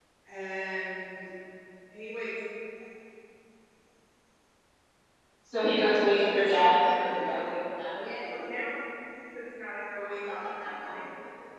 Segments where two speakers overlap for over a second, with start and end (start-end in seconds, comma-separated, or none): 5.7-7.3